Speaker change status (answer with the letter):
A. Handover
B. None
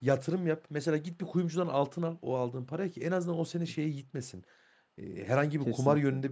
B